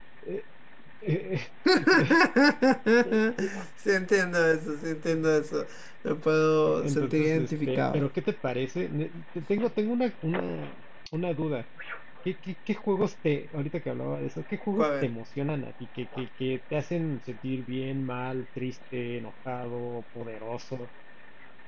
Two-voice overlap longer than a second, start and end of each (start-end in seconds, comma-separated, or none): 6.7-8.0